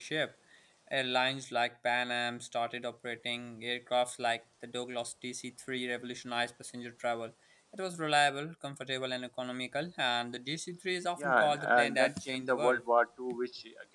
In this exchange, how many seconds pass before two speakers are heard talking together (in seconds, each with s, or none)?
11.2 s